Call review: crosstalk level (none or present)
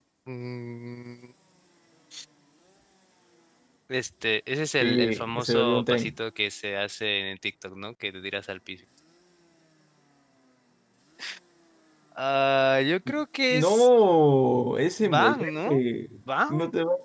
present